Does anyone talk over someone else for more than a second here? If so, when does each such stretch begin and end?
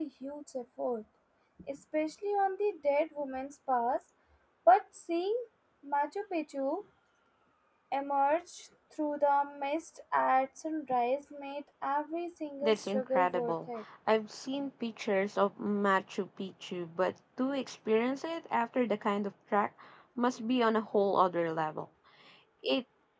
12.6-13.8

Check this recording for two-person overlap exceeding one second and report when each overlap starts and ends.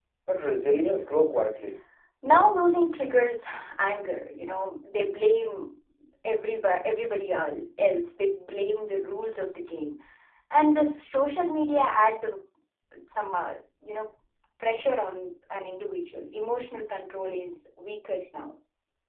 none

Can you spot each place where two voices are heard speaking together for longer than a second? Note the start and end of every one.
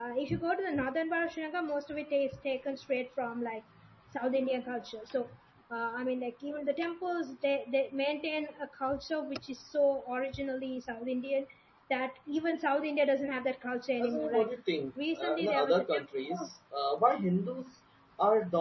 15.2-16.5

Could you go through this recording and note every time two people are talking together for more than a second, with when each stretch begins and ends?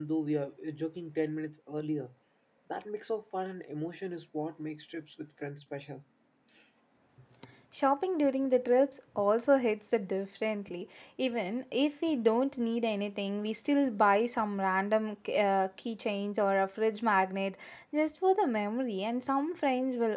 none

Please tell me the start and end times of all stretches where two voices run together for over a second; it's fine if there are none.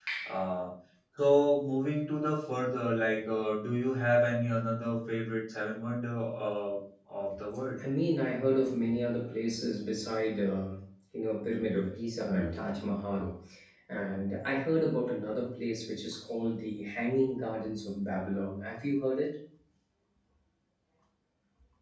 none

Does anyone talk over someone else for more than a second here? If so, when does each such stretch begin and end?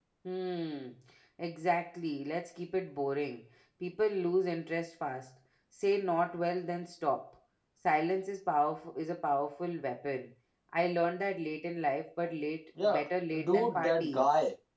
12.8-14.2

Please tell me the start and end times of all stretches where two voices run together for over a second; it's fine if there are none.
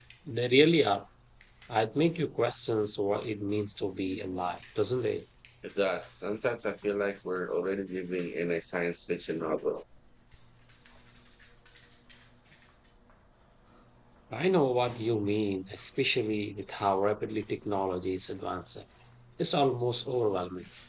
none

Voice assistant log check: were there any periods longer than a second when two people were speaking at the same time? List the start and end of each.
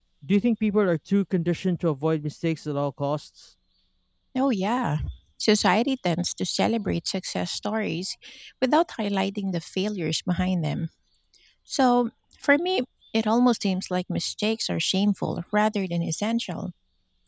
none

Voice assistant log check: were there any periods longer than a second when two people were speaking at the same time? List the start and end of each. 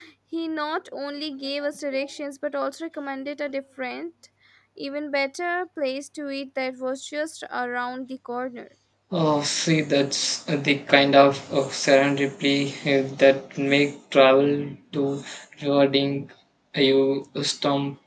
none

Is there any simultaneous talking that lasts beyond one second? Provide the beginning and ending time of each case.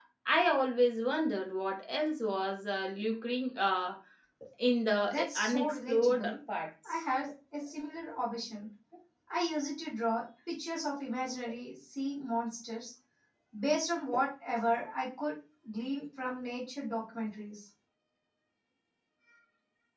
5.0-6.3

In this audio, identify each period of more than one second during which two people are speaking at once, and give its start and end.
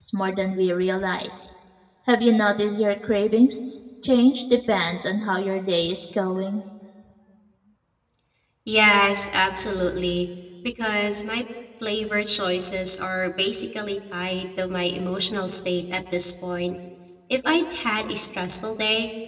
none

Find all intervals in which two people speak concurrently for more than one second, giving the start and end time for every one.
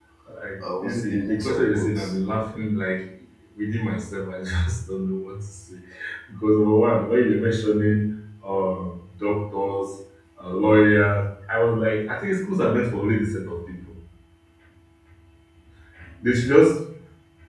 0.8-2.1

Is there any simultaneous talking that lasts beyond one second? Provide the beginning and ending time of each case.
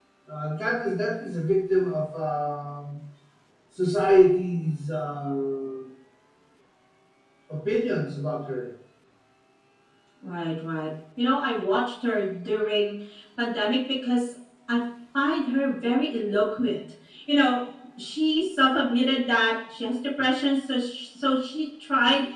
none

